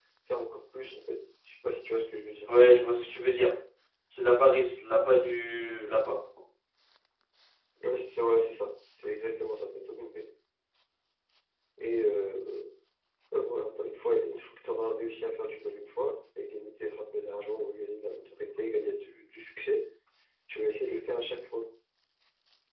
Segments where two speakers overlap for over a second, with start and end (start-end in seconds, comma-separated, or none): none